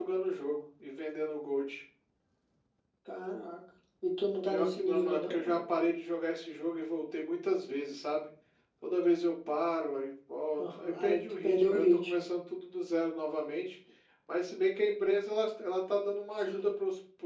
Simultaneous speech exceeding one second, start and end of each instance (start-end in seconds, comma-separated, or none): 4.5-5.7, 10.6-12.3